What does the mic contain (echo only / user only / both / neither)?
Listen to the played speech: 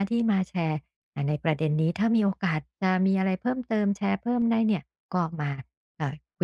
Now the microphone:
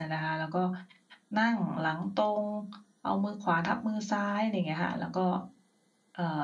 user only